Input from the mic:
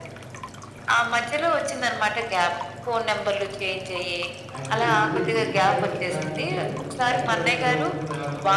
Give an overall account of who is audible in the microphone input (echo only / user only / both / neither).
both